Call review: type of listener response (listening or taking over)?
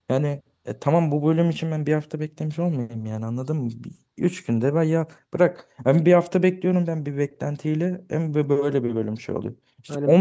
listening